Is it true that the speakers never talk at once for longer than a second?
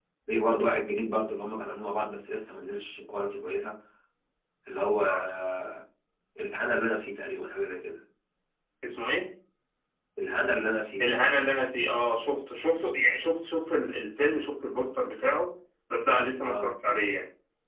Yes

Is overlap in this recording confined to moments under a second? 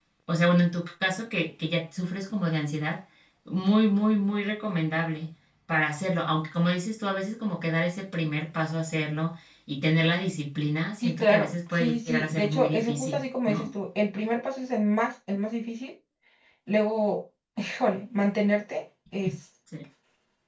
No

